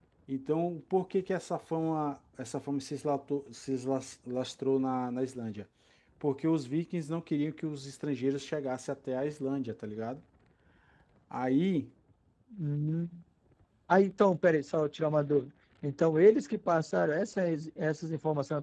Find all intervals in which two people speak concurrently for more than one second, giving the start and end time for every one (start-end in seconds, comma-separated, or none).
none